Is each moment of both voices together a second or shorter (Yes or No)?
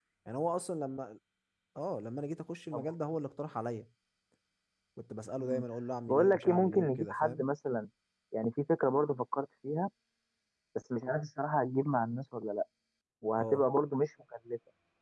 No